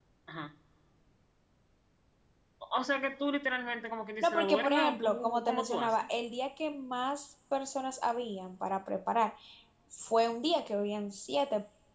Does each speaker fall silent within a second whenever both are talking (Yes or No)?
No